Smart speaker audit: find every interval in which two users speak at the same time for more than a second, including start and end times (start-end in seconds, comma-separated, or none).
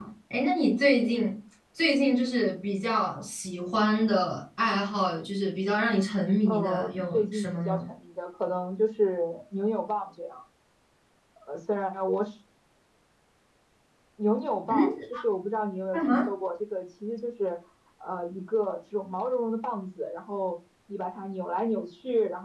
6.5-7.8